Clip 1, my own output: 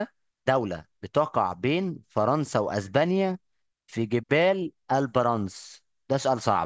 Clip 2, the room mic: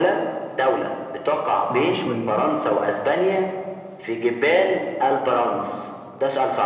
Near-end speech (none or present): present